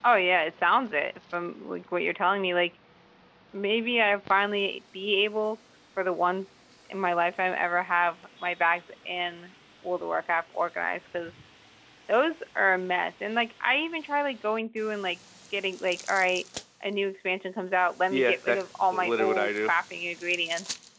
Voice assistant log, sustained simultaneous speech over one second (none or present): present